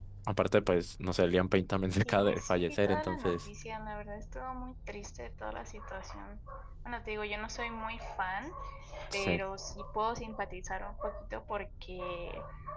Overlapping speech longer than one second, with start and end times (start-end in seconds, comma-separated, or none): 2.0-3.4